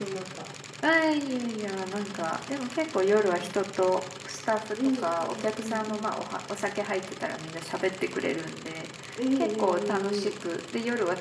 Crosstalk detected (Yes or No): Yes